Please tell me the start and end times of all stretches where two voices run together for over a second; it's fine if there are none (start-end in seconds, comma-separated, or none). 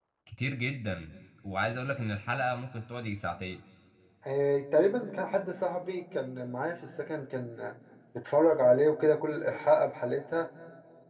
none